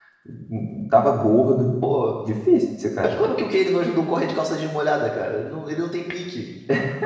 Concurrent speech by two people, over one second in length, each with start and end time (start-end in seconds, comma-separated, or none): none